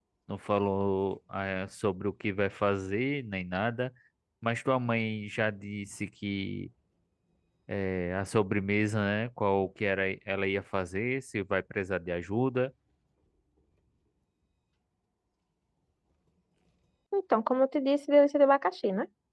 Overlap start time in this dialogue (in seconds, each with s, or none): none